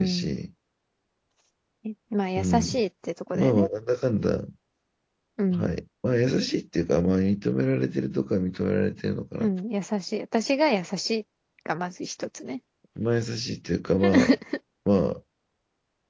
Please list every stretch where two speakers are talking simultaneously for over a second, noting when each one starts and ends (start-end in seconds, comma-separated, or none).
none